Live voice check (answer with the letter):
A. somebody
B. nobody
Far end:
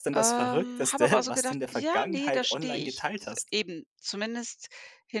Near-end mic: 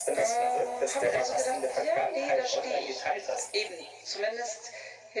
B